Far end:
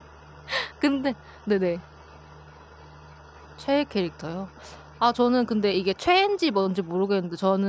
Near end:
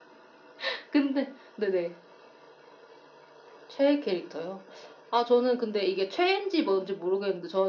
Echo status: present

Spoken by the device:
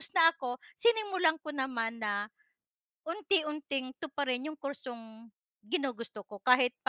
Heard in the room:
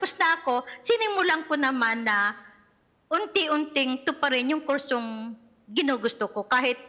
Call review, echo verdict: present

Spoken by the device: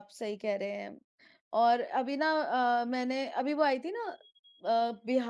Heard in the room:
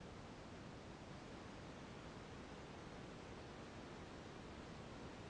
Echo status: none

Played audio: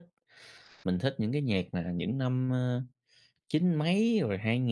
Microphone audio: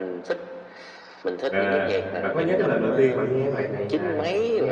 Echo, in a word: present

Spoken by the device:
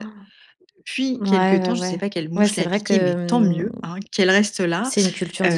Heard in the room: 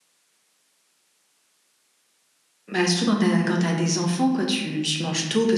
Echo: none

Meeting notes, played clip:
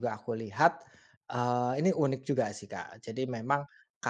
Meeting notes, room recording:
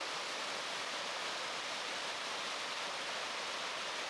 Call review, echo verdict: none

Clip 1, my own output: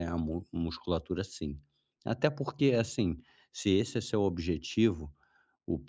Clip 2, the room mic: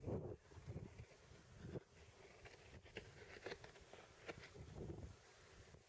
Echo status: none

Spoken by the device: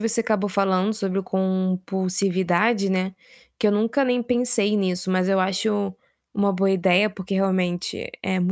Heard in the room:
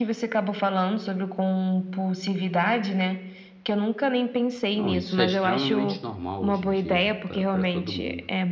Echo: present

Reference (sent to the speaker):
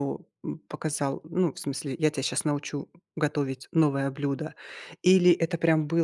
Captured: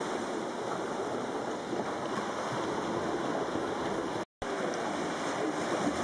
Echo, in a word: none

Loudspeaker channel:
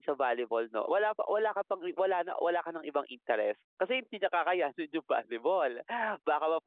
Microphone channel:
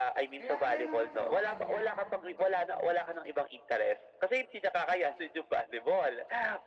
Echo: present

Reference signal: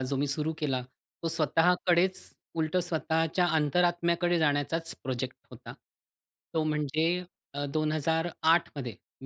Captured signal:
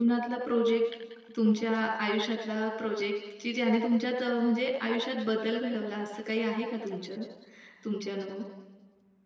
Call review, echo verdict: none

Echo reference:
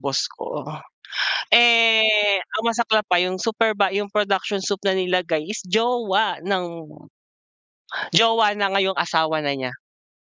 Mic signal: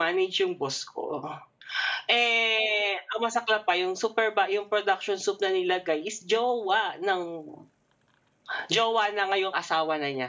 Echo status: present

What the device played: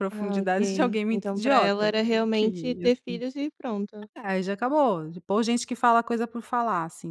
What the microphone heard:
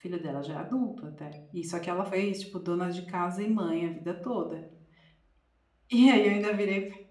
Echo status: none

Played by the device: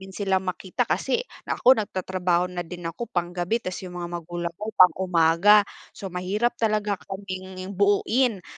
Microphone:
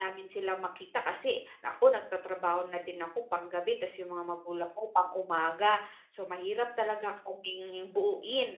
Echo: present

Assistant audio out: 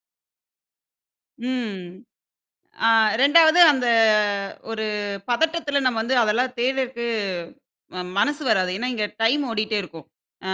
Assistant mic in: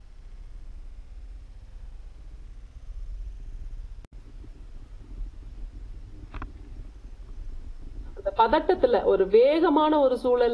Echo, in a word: none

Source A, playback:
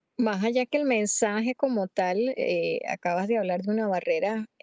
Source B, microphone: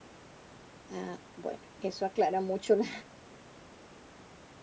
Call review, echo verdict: none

